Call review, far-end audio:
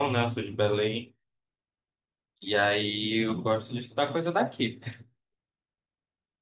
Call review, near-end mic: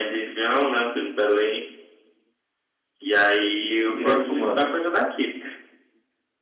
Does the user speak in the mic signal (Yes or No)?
Yes